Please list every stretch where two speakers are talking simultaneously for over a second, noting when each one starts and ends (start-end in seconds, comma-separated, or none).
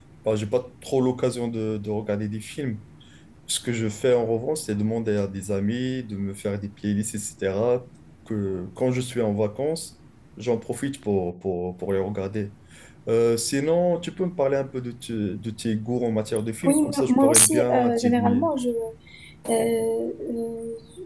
16.6-18.5